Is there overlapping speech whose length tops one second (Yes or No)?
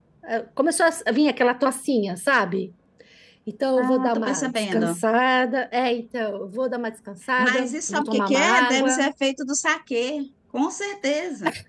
Yes